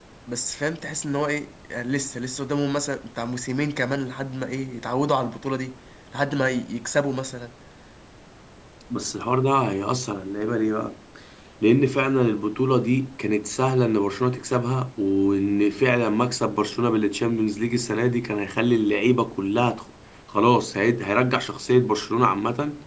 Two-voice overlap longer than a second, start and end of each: none

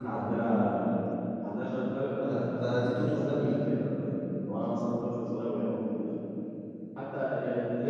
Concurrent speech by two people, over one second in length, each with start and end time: 2.3-3.6

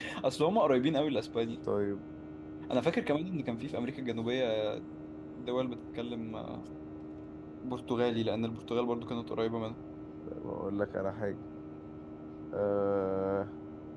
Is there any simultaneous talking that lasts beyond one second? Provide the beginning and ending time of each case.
none

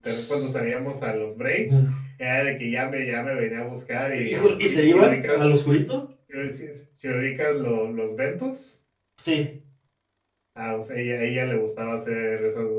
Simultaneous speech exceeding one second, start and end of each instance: 4.2-5.4

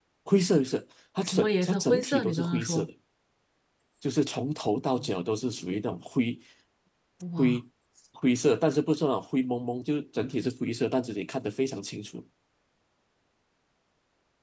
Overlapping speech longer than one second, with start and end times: 1.2-2.9

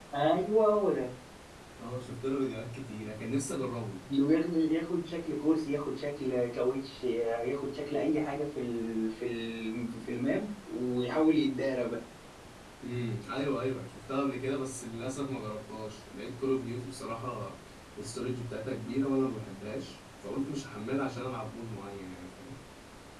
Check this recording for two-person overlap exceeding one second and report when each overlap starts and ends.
none

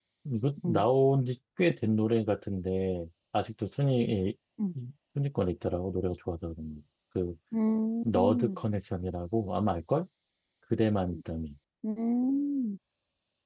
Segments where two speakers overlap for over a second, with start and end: none

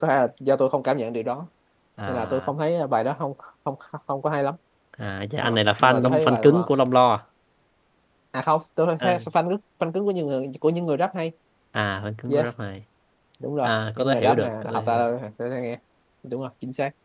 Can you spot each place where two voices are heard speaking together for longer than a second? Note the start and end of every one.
5.4-6.7, 13.6-15.0

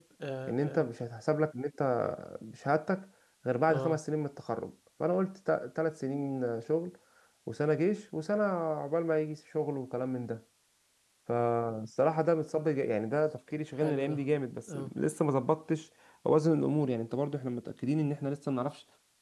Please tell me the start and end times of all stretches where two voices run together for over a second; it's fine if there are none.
none

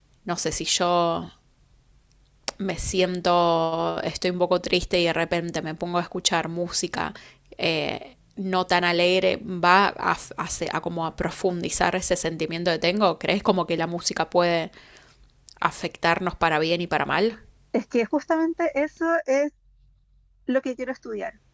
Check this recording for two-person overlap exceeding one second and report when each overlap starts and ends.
none

